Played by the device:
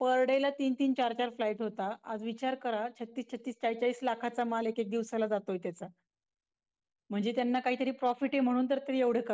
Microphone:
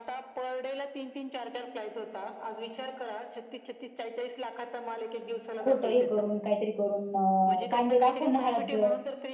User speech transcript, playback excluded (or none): खोट हे करून काहीतरी करून अ, कांदे दाखवून हळद